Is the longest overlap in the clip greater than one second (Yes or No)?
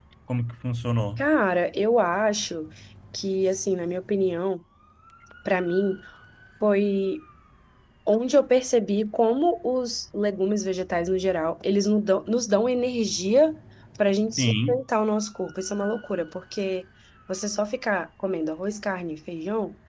No